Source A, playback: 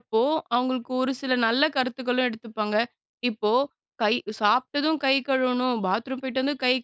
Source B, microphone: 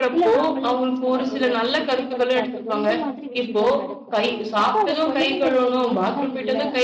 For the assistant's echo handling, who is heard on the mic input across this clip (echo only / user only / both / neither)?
both